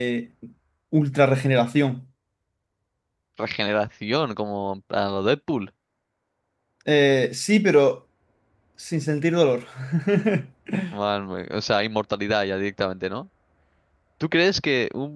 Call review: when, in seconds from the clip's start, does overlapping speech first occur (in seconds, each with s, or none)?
none